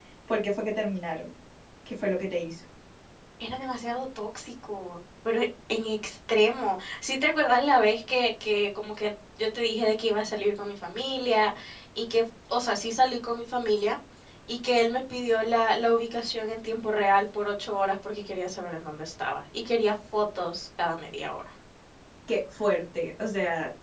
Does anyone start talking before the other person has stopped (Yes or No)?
No